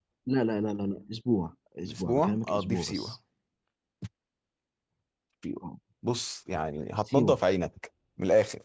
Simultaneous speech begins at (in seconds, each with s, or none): 1.9 s